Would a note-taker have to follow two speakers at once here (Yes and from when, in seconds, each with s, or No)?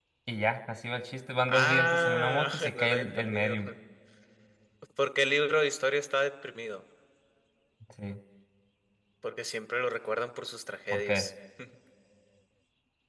Yes, from 1.5 s